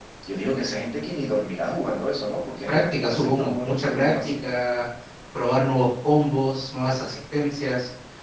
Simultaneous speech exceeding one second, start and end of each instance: 2.7-4.5

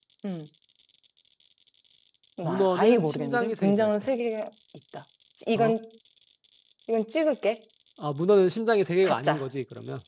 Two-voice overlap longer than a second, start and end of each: 2.4-3.9

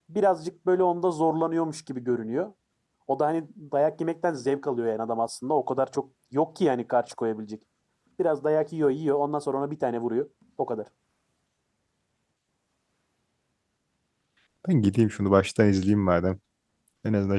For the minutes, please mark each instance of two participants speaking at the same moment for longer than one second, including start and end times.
none

